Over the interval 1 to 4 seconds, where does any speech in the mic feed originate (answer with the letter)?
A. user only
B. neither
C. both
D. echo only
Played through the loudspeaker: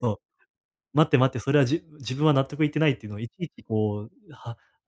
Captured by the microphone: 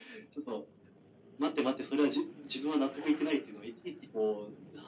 D